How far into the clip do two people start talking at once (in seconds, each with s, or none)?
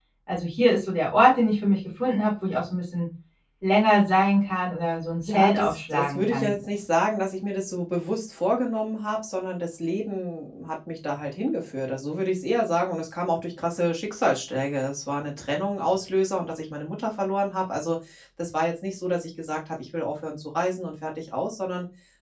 5.2 s